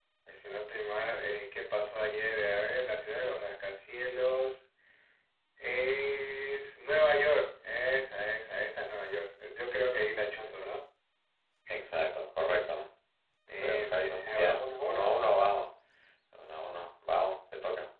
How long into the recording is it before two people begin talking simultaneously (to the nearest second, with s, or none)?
14 s